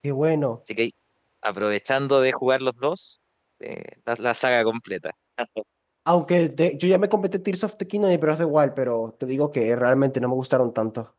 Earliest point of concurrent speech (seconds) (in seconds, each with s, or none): none